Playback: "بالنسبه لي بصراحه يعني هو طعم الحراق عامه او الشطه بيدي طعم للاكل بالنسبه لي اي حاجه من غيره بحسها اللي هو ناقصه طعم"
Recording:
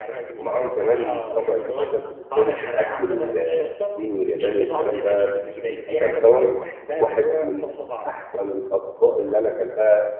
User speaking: Yes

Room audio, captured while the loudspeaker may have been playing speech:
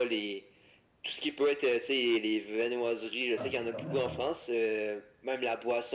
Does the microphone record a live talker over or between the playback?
Yes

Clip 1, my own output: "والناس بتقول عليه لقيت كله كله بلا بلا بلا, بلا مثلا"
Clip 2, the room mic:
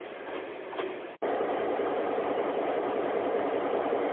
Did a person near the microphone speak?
No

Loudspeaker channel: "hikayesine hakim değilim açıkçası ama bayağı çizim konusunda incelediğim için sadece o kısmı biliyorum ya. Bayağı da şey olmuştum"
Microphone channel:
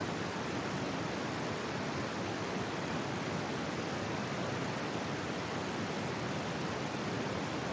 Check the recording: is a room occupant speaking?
No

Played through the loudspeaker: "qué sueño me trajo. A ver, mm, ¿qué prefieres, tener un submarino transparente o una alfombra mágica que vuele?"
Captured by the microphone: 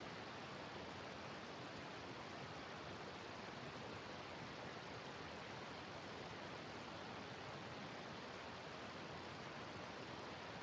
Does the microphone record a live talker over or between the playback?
No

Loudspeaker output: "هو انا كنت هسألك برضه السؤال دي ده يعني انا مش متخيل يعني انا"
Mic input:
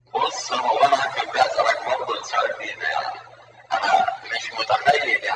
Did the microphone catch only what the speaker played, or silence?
Yes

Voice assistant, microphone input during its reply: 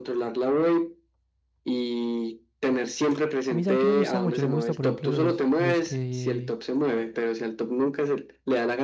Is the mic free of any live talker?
No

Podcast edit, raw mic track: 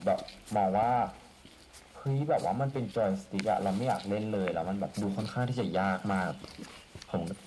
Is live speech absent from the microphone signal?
Yes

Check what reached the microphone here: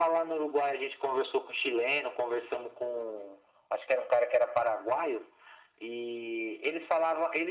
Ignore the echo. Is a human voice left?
No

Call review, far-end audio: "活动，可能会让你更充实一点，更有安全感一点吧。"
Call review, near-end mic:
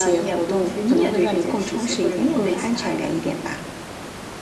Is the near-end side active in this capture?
Yes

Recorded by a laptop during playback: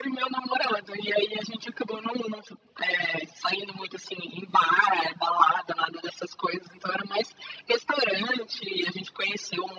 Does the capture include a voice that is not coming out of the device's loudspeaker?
No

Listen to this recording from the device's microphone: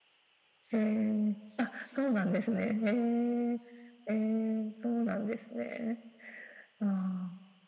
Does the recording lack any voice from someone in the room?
Yes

